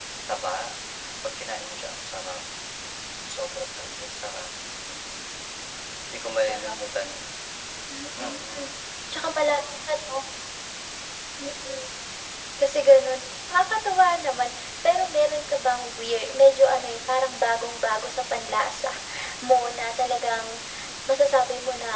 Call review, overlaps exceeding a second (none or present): none